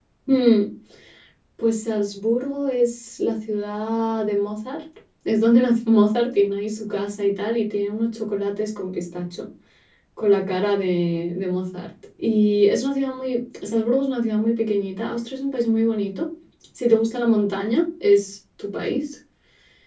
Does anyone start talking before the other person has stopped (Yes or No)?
No